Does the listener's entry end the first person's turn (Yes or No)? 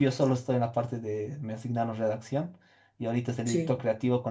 No